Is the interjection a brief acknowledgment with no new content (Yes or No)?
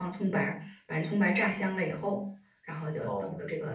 Yes